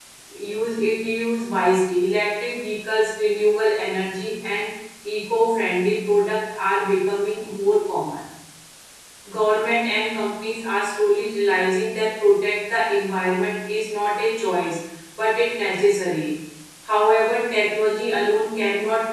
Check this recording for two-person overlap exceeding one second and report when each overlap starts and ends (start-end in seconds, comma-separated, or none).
none